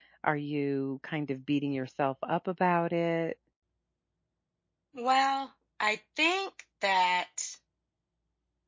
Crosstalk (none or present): none